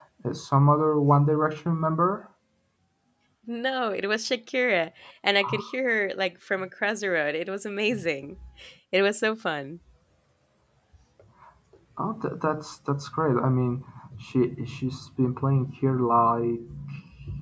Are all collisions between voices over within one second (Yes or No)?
Yes